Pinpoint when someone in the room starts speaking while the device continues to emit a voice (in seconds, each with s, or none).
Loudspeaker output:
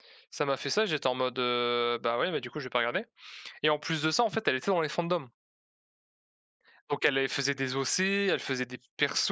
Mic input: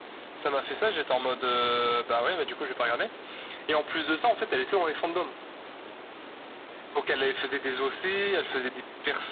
none